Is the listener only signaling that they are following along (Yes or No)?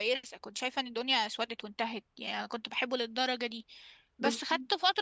Yes